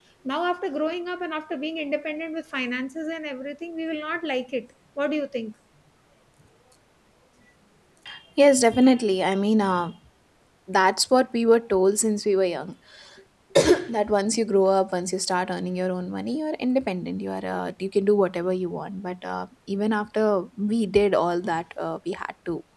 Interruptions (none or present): none